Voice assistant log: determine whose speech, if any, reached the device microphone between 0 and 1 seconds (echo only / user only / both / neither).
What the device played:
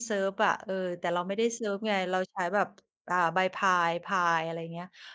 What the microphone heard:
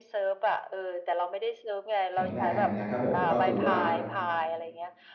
echo only